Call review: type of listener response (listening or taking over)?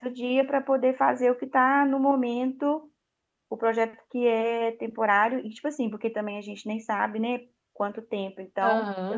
taking over